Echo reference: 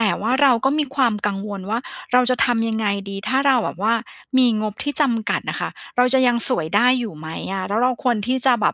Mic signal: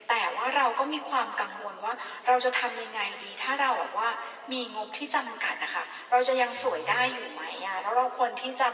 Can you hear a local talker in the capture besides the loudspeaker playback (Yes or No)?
Yes